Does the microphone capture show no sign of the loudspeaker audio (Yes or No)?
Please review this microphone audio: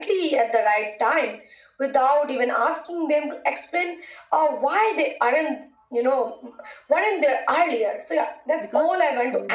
No